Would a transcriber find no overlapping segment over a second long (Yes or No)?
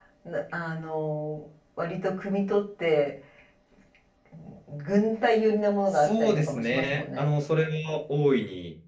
No